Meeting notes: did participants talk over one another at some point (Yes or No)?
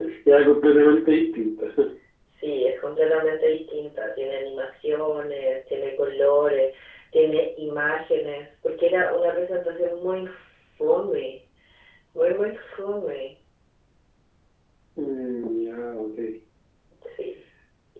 No